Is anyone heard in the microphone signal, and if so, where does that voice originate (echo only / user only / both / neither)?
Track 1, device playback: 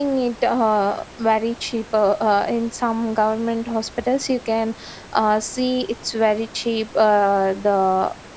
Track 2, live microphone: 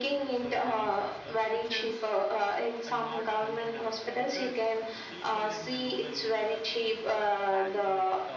both